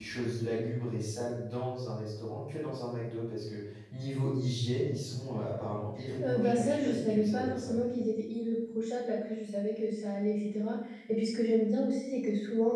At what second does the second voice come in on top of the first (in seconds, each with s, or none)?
6.2 s